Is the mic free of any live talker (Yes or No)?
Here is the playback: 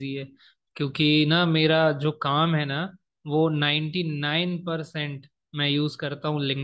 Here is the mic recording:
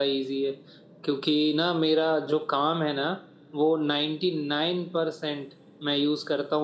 Yes